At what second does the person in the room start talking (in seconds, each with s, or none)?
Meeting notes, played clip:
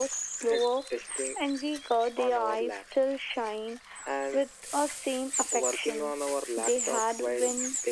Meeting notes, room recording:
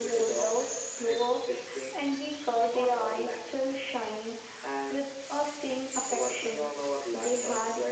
none